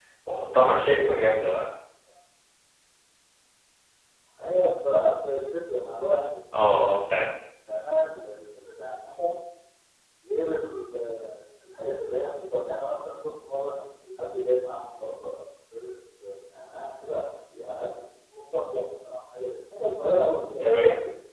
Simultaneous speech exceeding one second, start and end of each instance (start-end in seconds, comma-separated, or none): none